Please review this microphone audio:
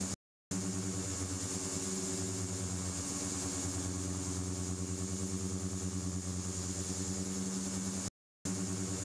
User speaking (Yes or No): No